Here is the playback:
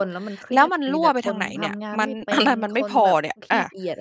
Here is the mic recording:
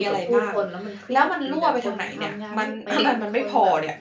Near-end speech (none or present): none